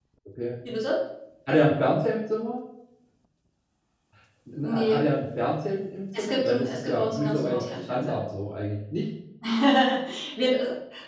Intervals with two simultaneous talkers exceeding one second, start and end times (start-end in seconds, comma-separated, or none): 6.1-8.2